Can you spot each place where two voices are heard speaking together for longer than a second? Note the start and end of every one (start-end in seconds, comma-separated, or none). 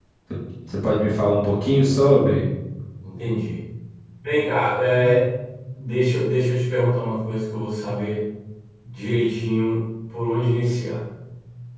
none